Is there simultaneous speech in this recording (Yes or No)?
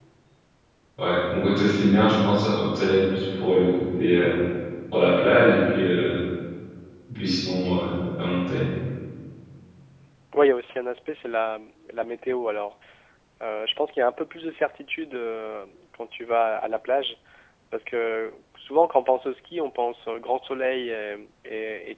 No